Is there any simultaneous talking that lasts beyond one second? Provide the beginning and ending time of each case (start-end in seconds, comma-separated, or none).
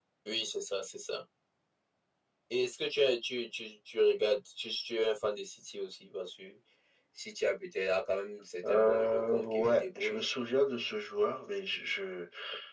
8.7-10.2